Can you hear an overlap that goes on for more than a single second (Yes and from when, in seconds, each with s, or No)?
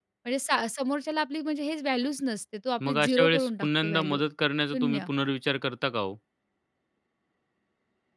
Yes, from 2.9 s